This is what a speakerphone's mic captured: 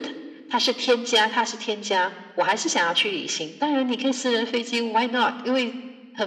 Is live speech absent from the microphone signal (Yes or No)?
Yes